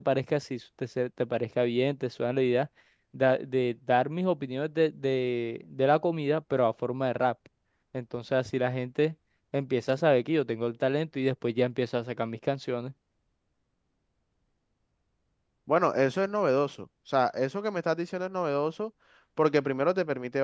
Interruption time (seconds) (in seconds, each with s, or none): none